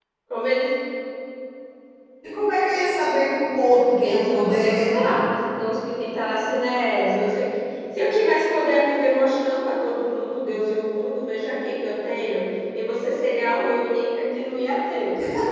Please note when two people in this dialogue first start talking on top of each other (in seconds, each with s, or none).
3.7 s